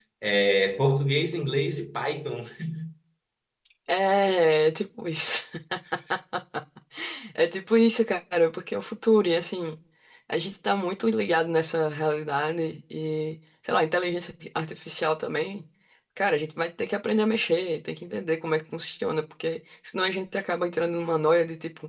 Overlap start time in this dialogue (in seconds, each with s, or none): none